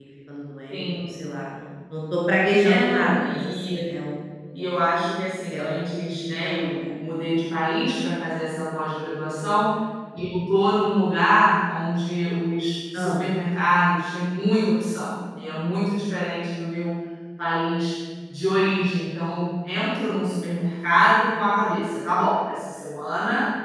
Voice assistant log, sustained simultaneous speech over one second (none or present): present